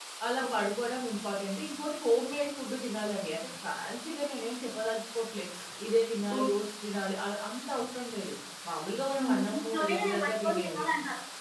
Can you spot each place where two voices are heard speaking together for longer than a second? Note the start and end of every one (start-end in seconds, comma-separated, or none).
9.2-10.8